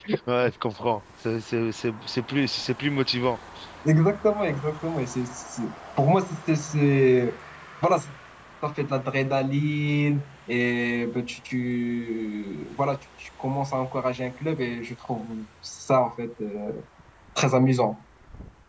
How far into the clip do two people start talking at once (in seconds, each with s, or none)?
none